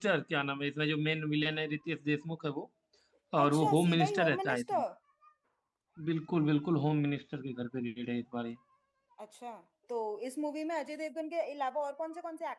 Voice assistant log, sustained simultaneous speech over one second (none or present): present